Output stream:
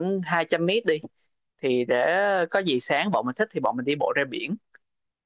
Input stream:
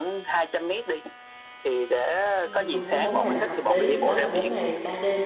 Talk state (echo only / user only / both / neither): both